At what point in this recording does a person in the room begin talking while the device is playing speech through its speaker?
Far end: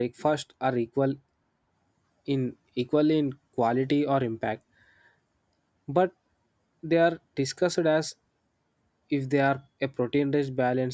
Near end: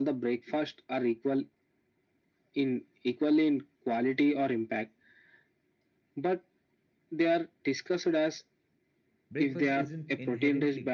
9.3 s

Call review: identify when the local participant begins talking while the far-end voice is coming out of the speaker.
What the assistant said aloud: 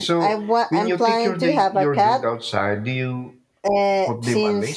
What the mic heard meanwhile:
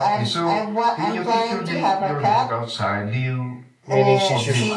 3.8 s

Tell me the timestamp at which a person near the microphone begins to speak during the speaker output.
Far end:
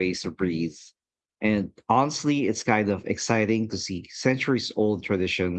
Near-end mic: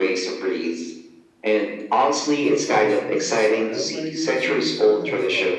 2.2 s

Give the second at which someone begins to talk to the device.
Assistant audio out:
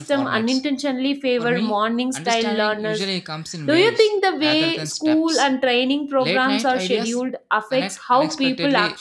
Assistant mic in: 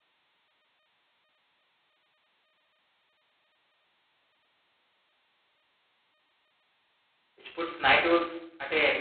7.4 s

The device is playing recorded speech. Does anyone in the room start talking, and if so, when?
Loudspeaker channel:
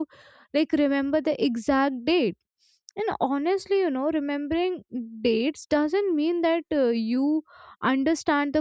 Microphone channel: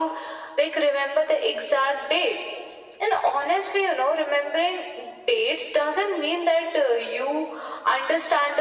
none

